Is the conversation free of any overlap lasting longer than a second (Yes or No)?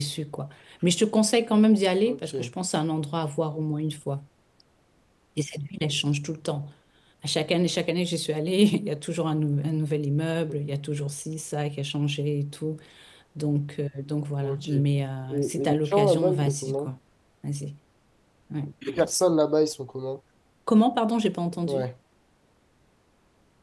No